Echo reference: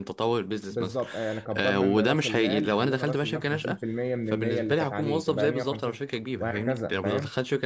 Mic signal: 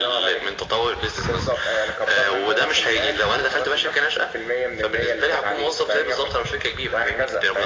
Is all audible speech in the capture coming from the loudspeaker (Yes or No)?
Yes